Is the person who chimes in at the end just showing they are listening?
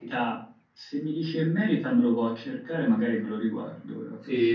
No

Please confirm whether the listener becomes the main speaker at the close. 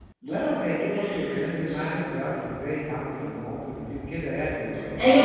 Yes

